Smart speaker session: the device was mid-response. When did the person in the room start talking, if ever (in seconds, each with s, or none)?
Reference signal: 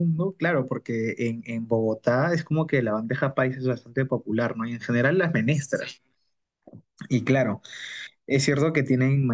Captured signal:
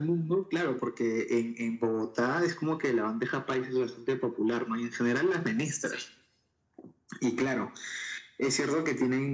none